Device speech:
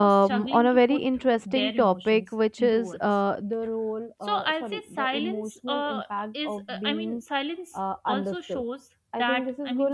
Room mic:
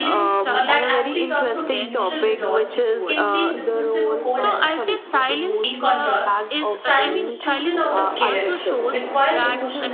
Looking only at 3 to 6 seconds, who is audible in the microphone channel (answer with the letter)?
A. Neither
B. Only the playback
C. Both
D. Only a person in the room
C